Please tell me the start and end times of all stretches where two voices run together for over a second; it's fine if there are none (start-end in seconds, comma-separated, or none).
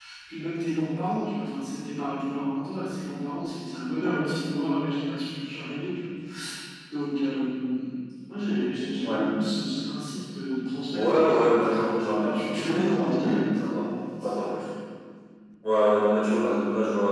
12.2-13.7